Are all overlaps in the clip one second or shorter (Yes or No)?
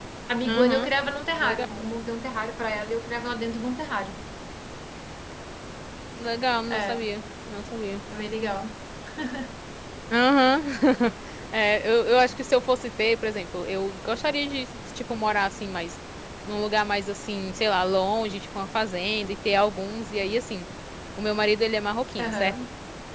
Yes